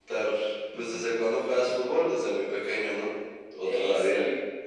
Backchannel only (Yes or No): No